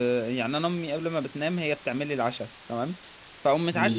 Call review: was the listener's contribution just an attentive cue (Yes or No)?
Yes